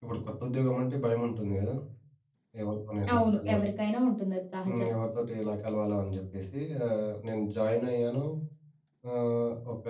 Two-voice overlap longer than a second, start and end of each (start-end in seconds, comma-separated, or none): none